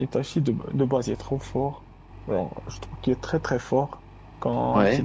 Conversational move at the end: listening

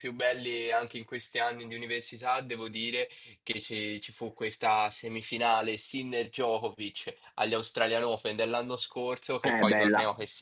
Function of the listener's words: listening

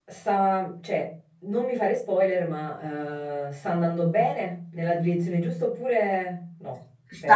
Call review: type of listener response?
taking over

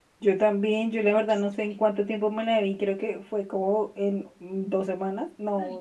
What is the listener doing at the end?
taking over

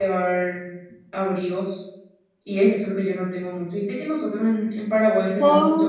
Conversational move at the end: taking over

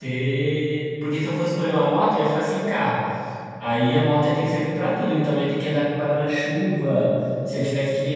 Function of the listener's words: listening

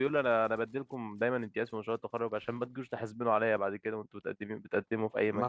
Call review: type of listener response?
taking over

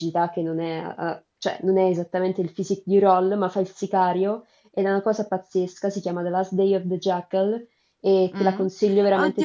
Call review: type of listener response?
taking over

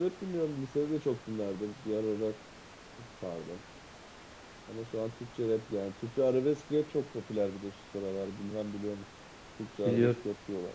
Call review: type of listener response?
taking over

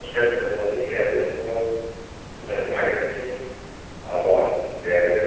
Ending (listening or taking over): listening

